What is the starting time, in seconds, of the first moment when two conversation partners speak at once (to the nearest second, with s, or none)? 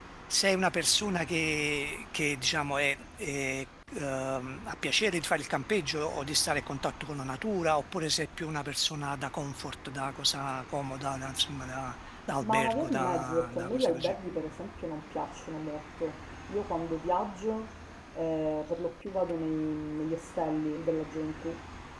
12 s